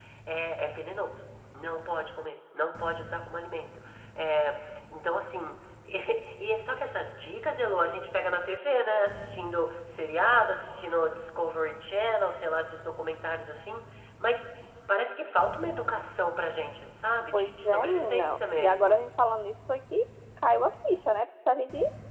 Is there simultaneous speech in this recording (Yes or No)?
Yes